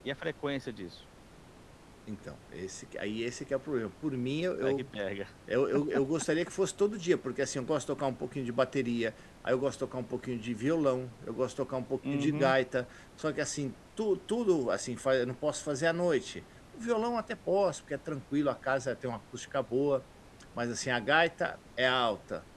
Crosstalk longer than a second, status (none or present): none